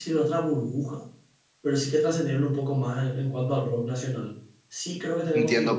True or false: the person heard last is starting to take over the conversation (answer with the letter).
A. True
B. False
A